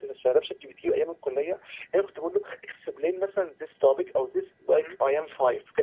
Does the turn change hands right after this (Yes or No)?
No